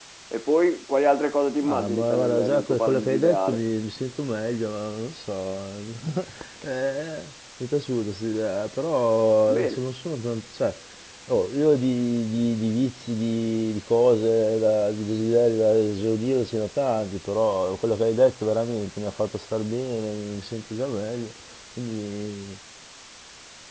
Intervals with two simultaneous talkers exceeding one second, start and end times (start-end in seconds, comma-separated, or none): 1.6-3.6